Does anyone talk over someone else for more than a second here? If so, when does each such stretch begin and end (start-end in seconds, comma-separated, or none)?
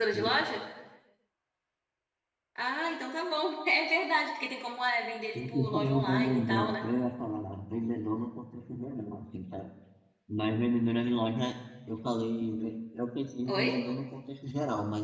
5.6-6.8